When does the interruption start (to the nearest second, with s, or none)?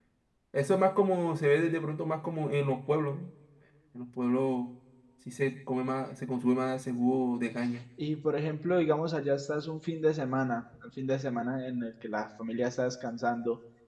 none